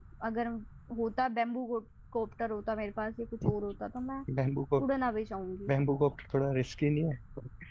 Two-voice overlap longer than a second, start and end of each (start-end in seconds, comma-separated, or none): none